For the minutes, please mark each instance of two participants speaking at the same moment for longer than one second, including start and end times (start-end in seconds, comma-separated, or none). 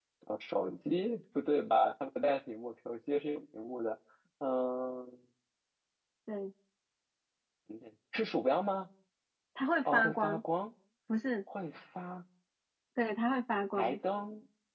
none